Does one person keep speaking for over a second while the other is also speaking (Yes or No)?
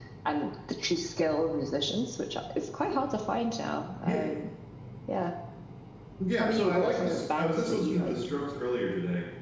Yes